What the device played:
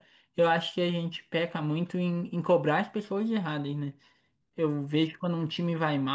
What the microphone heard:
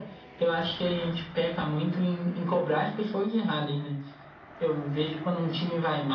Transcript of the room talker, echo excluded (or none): none